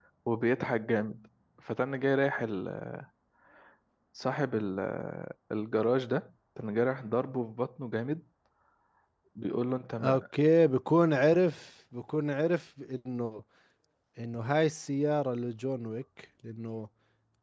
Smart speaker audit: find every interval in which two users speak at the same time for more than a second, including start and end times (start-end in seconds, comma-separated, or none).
none